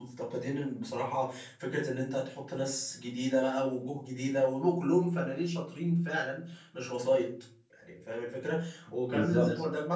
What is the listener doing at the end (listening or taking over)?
listening